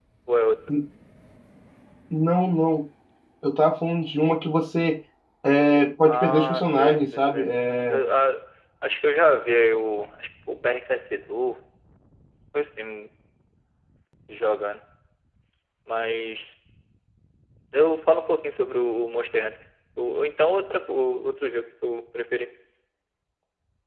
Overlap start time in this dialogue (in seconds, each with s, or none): 6.0 s